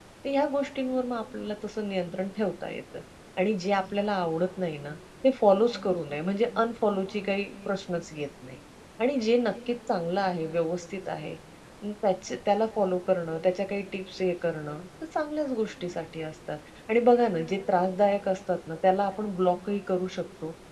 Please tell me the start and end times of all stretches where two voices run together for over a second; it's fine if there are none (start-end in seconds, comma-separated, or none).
none